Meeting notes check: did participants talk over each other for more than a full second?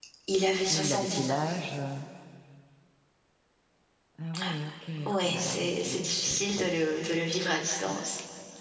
Yes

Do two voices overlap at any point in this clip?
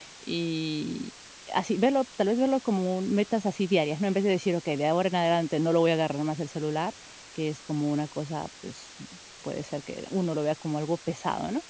No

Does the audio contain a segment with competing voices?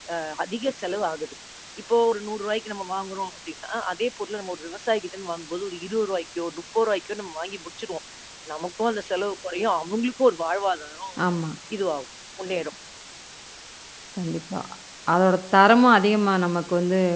No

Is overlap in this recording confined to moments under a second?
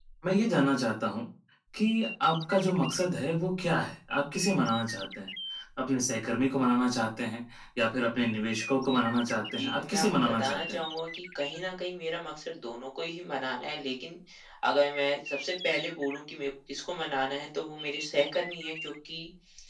No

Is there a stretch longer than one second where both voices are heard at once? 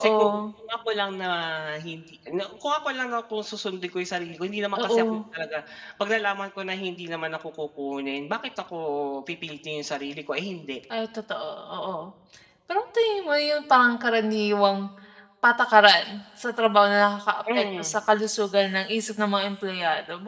No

